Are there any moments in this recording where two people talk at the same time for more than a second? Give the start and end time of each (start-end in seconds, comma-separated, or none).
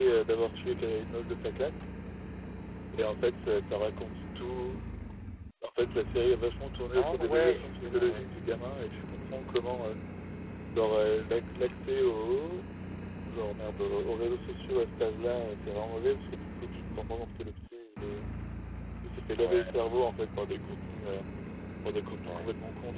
7.0-8.3